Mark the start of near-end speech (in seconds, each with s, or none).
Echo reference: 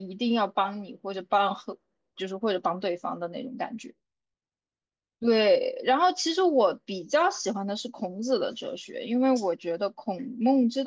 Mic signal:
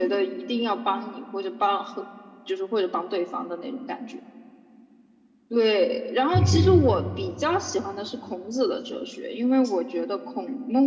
6.3 s